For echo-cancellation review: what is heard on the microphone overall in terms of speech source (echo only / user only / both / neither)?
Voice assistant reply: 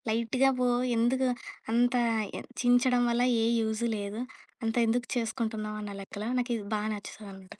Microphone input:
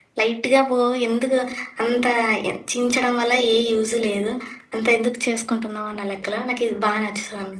echo only